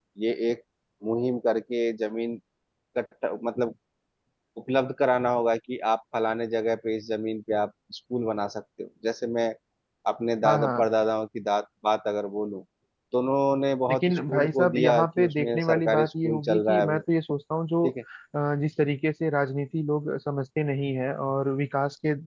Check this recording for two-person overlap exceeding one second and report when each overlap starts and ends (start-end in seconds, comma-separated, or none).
13.9-17.0